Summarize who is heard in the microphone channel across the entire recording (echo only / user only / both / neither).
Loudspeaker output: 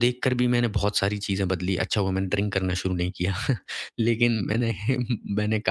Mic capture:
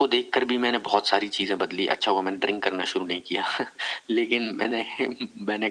echo only